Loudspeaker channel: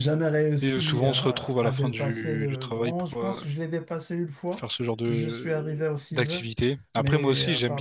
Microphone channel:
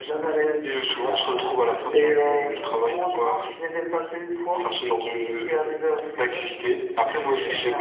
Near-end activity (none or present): present